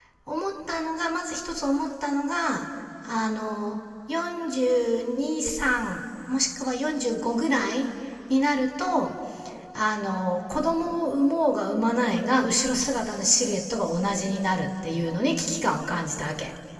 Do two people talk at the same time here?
No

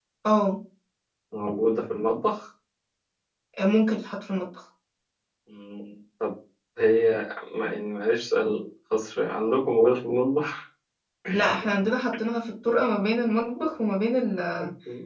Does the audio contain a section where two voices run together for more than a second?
No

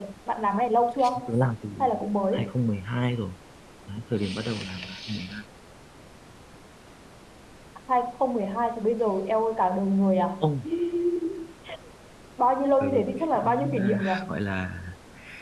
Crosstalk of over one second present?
Yes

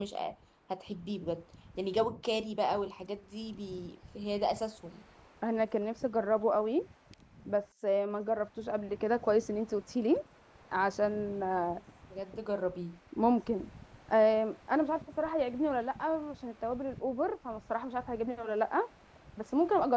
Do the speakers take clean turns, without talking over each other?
Yes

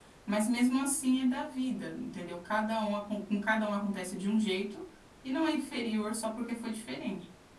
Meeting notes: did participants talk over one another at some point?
No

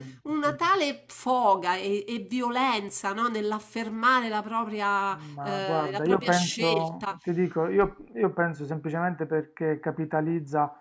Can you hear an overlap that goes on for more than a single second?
Yes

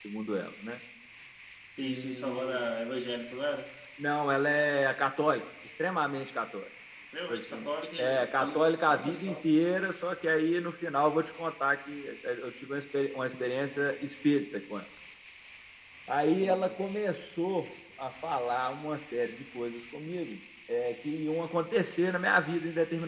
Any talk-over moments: Yes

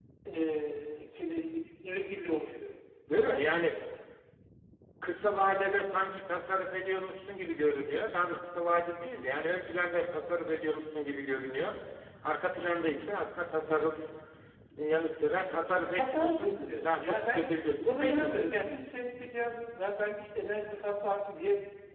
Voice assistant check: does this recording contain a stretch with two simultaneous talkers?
Yes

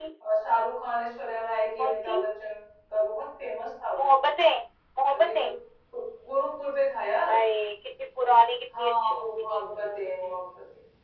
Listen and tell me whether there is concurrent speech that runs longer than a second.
Yes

